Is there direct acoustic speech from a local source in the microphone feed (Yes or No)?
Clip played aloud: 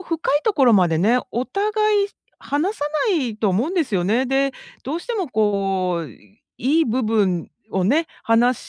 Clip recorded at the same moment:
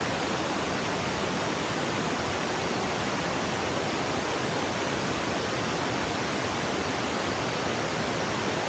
No